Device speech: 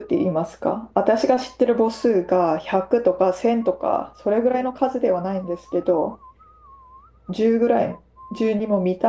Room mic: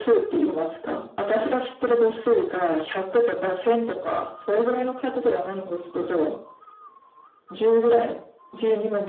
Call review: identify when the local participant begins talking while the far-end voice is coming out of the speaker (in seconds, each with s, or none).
none